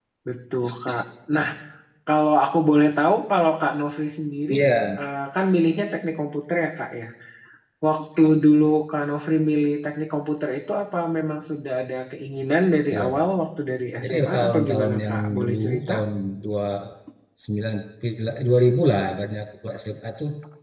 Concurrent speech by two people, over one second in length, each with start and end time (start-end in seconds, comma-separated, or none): 14.0-15.9